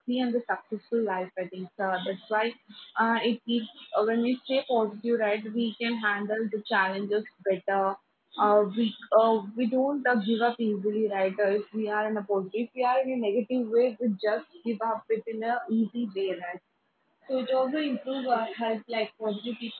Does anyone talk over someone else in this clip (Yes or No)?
No